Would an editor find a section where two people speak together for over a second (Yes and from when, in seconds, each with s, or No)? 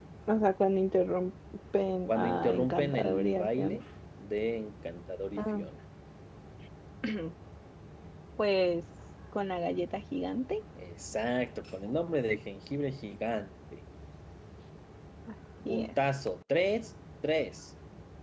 Yes, from 2.1 s